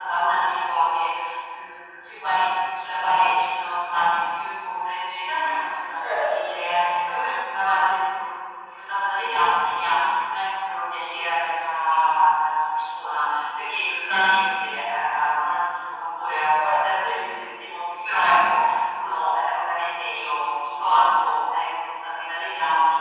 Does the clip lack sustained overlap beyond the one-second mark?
Yes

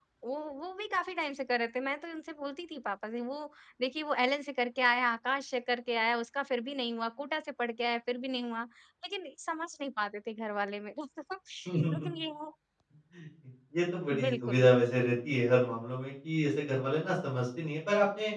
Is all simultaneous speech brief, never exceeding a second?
Yes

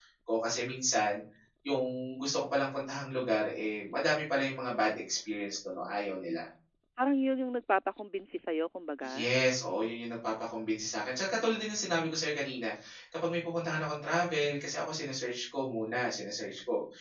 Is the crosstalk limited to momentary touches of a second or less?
Yes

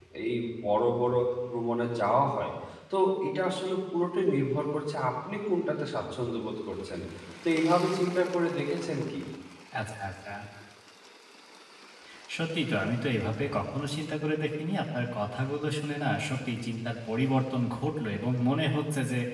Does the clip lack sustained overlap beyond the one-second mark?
Yes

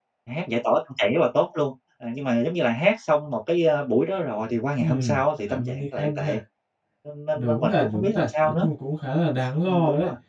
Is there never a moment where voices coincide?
No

